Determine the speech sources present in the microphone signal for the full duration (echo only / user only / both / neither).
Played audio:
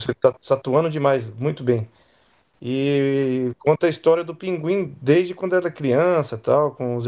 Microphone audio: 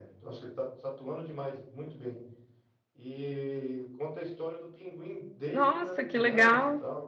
both